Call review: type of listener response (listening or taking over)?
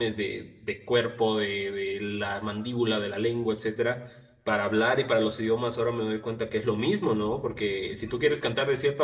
listening